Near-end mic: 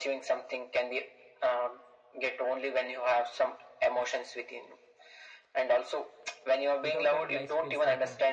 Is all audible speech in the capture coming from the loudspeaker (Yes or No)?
No